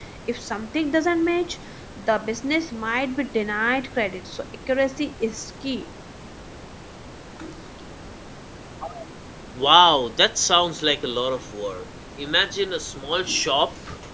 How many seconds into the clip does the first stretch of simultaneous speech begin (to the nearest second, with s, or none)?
none